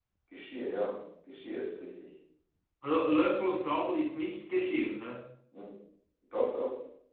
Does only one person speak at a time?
Yes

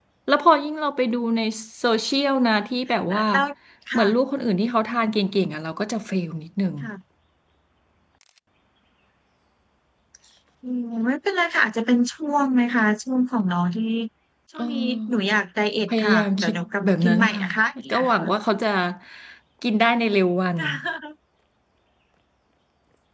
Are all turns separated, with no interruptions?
No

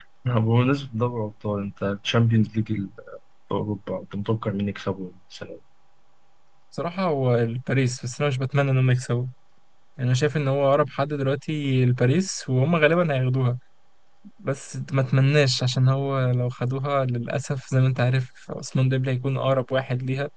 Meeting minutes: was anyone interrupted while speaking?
No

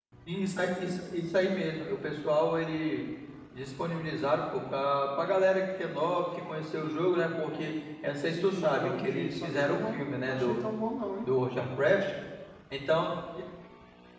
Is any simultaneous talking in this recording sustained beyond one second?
Yes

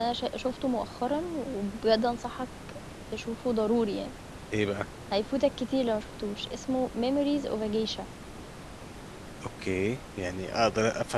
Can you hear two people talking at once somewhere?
No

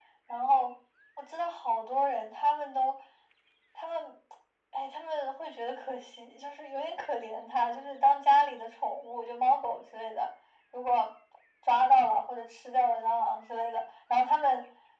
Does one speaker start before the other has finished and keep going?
No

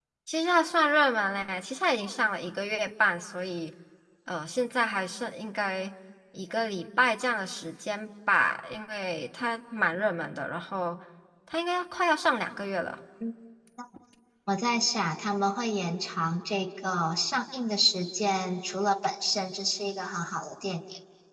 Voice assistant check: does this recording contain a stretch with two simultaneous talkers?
No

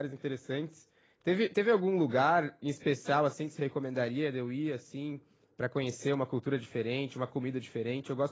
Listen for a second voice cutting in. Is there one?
No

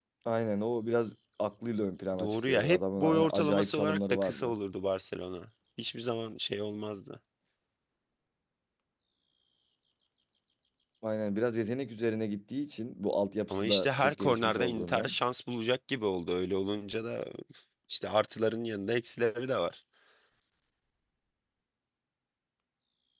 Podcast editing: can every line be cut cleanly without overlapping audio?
No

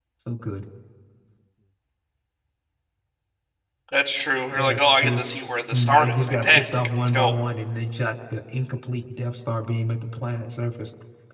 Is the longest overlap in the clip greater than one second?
Yes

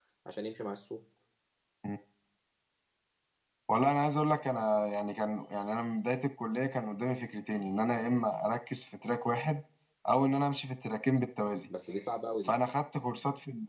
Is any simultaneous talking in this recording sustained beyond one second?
No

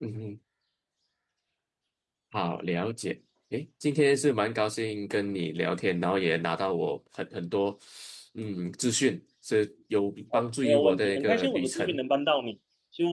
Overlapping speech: Yes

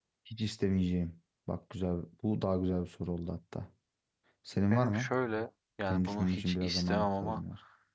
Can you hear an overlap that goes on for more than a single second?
Yes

